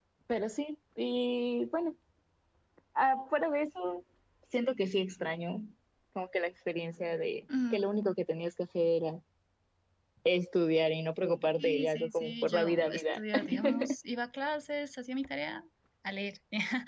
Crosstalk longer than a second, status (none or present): present